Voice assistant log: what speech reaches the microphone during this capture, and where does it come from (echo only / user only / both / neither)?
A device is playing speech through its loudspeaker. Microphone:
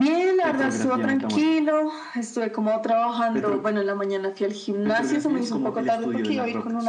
echo only